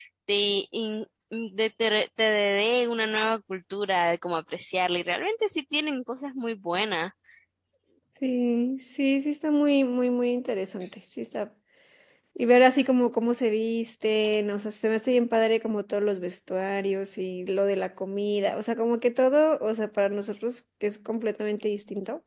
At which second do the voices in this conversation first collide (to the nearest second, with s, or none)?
none